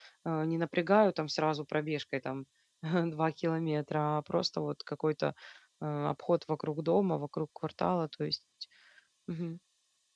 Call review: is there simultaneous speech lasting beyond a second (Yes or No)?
No